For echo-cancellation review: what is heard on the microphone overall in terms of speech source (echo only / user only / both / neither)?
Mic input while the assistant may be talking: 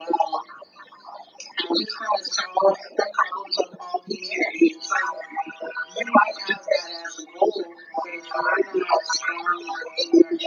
echo only